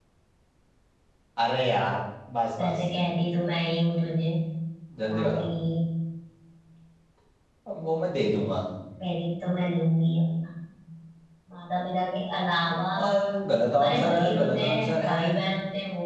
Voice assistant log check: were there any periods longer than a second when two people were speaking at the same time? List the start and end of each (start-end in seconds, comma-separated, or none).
13.7-15.2